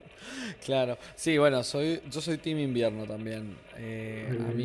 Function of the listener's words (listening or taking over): listening